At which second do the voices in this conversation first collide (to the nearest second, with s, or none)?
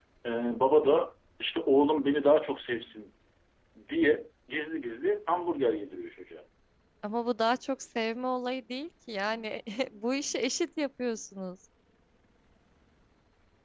none